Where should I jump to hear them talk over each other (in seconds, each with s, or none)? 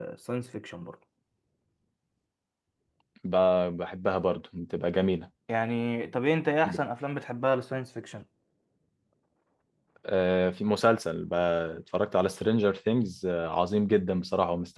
none